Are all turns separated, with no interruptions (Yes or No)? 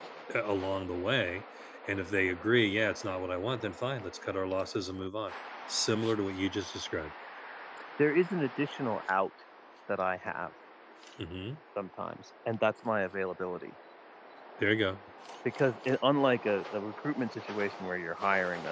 Yes